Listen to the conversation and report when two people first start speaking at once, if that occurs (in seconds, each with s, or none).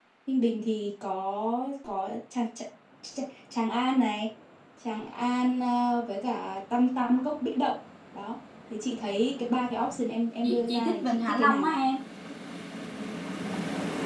10.4 s